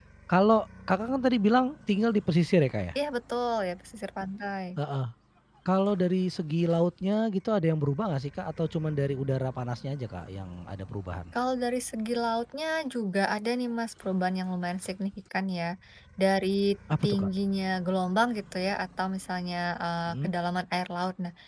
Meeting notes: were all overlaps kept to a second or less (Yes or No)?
Yes